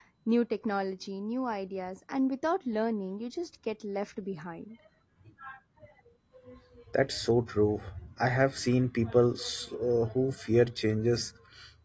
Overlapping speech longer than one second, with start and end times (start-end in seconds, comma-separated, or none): none